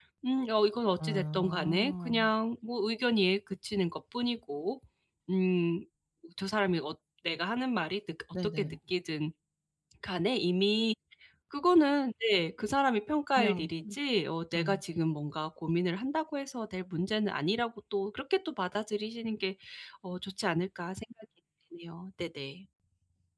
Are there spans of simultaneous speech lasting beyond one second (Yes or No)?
Yes